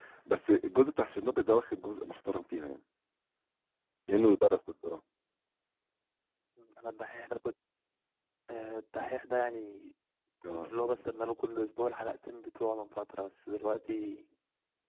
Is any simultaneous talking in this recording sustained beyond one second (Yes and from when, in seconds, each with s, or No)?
No